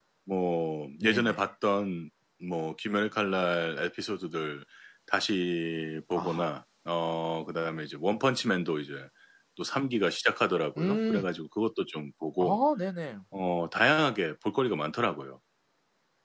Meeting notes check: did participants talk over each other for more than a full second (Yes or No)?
No